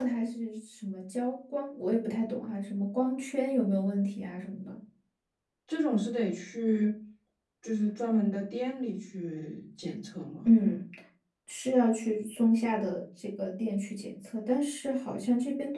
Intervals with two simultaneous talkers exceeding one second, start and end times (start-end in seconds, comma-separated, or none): none